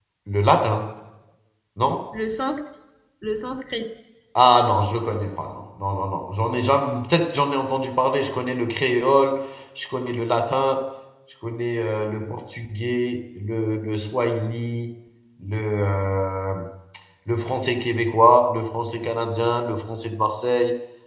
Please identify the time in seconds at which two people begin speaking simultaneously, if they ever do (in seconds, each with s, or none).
none